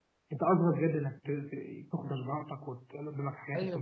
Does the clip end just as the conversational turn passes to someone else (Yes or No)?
Yes